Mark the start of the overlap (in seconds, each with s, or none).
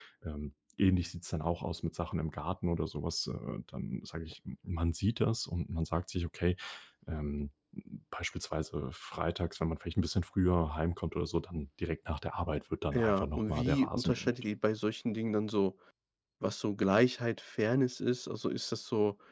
12.9 s